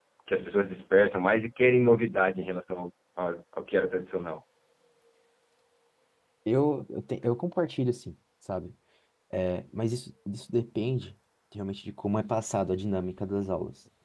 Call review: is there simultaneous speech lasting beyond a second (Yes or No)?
No